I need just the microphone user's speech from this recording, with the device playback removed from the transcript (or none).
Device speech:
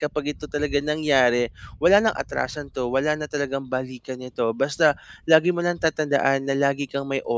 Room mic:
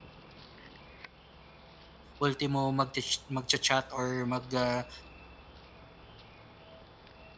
ultimo mag ch magcha-chat or mag, ah,